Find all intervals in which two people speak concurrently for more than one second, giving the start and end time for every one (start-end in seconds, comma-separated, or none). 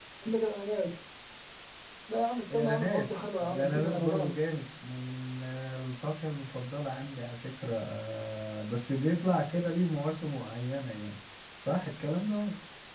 2.5-4.4